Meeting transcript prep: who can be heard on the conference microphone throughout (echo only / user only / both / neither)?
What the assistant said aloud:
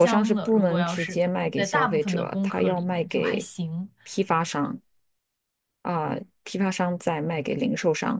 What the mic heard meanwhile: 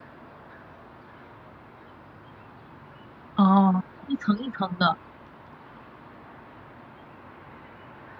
user only